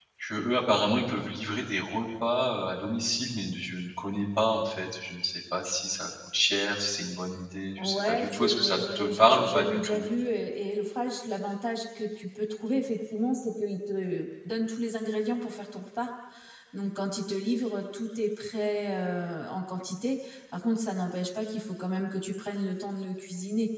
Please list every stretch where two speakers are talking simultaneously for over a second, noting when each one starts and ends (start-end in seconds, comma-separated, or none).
7.8-10.1